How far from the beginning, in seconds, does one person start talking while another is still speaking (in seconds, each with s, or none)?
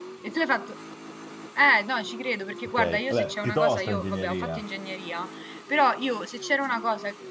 2.6 s